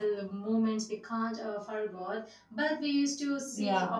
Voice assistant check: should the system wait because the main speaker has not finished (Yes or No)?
Yes